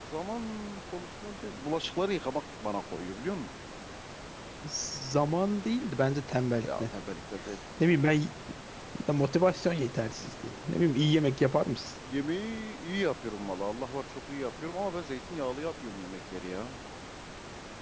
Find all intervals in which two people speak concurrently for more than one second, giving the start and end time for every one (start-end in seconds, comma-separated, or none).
none